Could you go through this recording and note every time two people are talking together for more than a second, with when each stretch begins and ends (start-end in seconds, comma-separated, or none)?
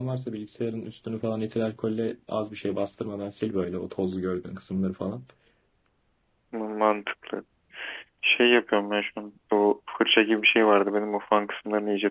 none